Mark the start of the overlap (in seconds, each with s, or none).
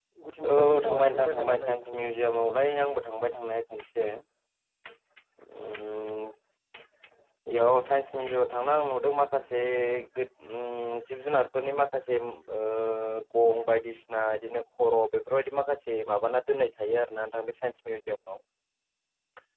0.5 s